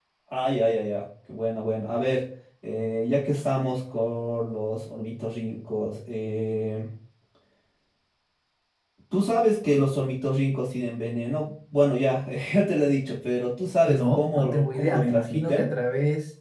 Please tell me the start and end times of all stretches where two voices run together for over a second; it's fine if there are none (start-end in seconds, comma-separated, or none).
13.9-15.7